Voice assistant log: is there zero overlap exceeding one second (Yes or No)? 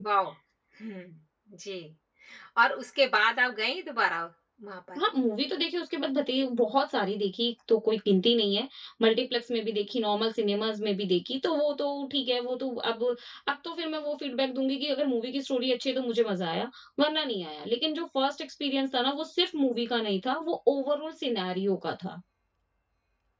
Yes